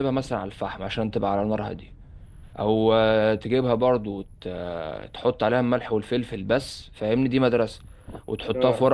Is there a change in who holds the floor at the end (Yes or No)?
No